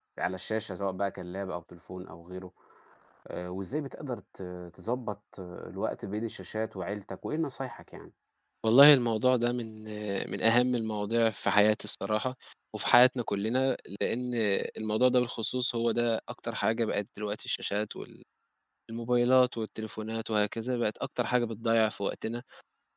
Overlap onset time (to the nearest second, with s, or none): none